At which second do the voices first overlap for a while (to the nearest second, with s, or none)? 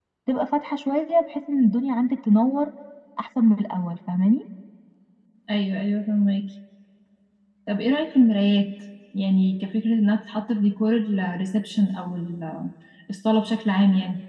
none